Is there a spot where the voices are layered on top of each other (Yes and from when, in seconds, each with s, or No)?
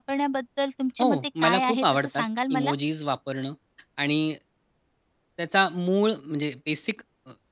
Yes, from 1.0 s